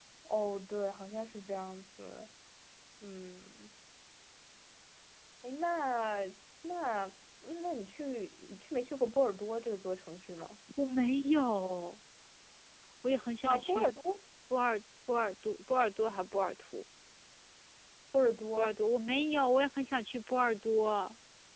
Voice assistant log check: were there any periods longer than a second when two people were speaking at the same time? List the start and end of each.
none

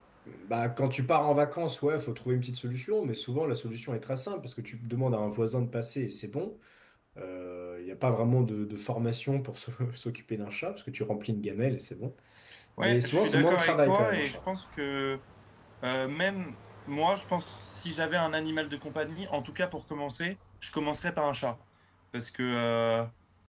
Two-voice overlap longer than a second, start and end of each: 12.8-14.4

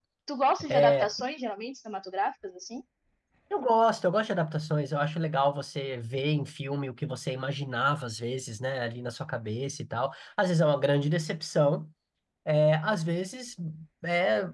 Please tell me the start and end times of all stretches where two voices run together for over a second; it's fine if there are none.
none

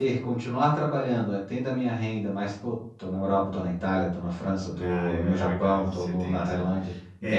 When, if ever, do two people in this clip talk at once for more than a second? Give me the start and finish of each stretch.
4.8-6.7

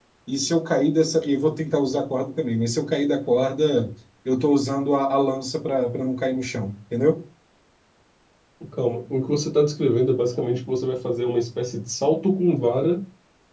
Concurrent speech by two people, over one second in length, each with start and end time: none

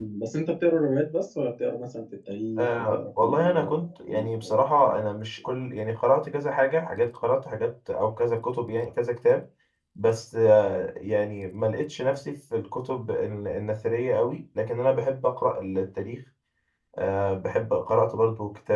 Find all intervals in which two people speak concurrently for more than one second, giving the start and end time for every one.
2.6-5.2

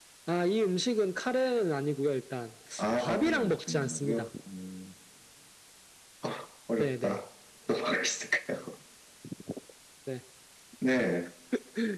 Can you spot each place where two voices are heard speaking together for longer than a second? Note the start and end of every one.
3.0-4.3

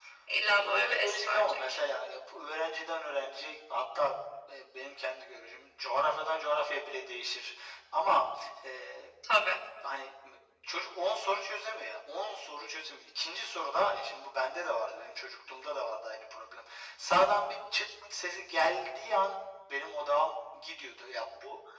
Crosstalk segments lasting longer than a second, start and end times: 0.5-1.8

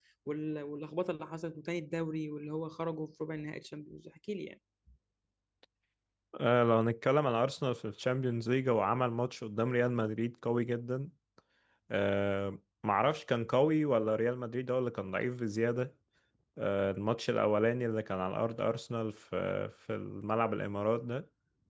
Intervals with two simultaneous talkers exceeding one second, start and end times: none

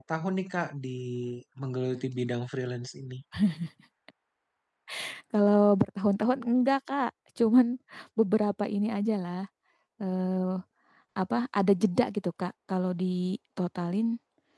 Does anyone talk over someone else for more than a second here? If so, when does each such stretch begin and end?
none

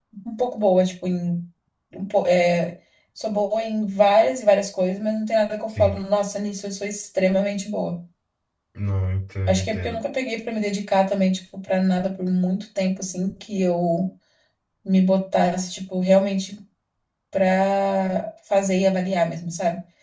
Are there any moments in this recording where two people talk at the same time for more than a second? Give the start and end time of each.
none

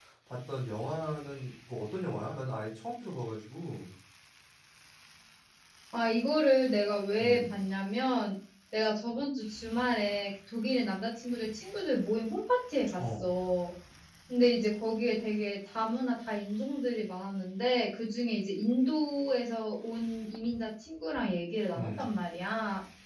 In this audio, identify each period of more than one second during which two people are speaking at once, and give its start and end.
none

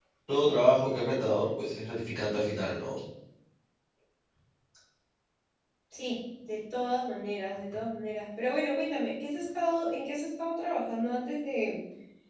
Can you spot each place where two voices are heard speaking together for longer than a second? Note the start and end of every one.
none

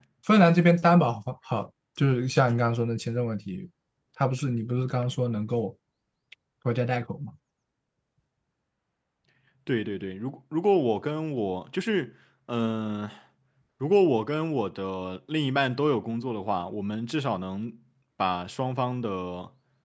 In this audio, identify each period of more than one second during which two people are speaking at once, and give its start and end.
none

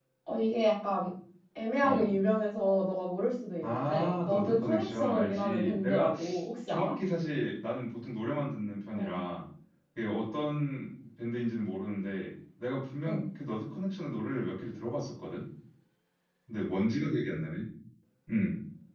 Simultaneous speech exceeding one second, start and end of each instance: 3.6-6.1

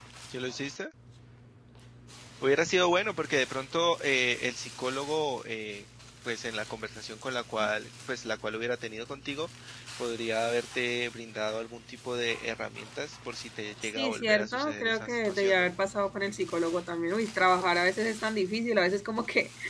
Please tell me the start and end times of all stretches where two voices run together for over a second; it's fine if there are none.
14.0-15.7

